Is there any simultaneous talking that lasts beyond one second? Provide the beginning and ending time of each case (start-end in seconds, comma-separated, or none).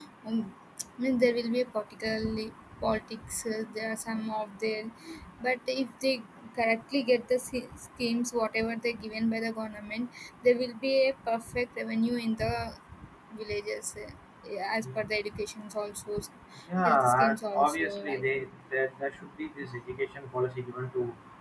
16.8-18.2